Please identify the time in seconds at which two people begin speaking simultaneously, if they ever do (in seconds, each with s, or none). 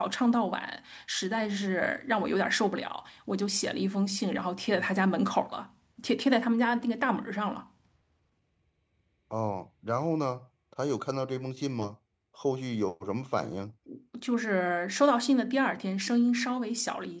none